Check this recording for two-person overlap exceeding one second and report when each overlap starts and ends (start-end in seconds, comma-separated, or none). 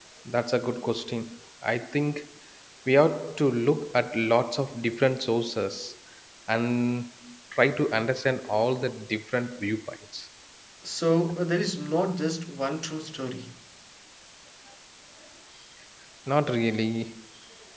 none